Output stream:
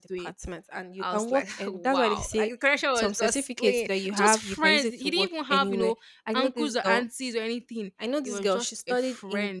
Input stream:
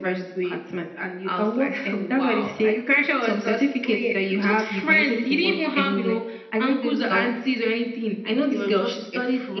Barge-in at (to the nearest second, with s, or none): none